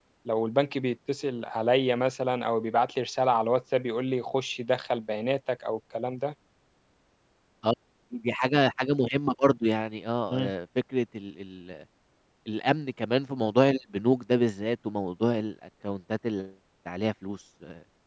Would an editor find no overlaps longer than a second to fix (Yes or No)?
Yes